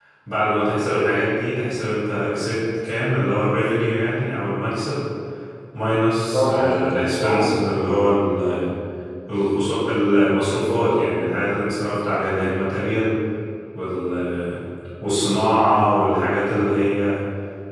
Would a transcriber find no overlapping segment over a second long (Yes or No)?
No